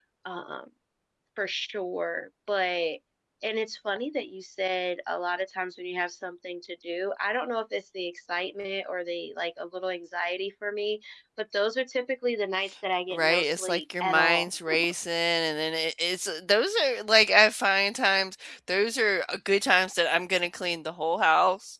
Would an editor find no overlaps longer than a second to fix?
No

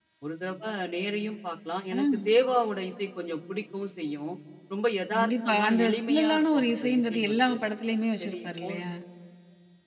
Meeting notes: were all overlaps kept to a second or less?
No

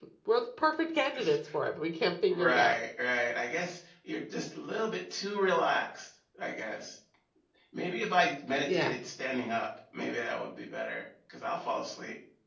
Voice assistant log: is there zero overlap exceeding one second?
Yes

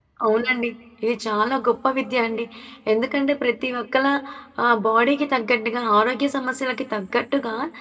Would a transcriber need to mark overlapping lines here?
No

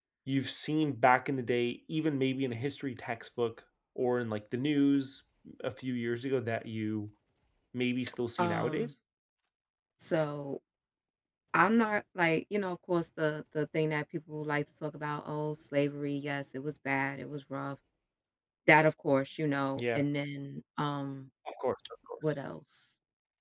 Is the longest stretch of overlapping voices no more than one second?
Yes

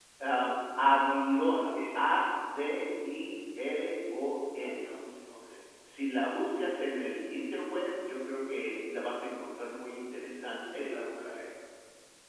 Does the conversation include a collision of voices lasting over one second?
No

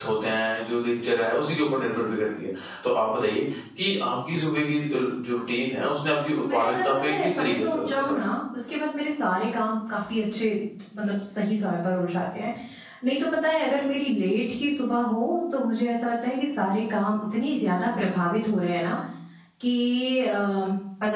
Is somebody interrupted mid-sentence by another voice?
Yes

